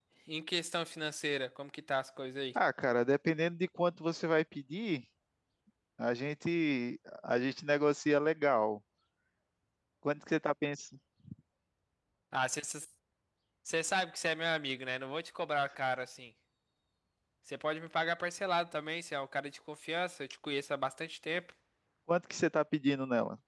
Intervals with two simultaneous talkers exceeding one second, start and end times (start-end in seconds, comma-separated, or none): none